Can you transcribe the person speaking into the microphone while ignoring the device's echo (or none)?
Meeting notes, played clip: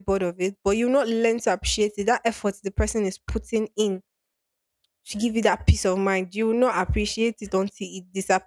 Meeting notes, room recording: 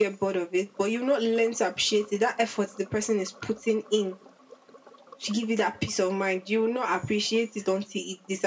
none